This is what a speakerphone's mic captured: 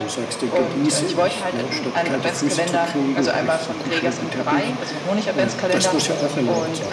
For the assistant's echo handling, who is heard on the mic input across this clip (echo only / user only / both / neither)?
echo only